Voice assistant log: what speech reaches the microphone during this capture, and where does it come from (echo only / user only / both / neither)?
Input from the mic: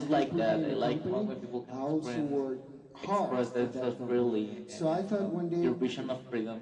echo only